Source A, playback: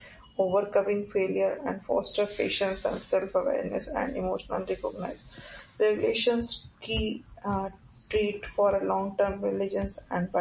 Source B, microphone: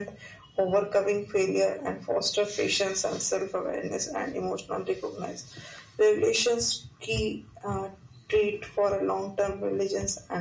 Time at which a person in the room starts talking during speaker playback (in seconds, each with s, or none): none